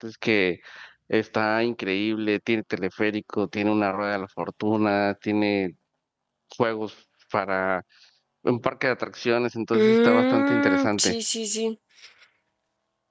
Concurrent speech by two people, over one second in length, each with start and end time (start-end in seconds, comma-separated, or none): 9.7-11.2